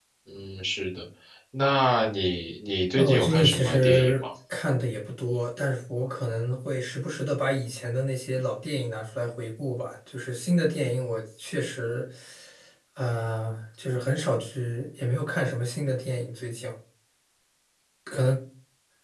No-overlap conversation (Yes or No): No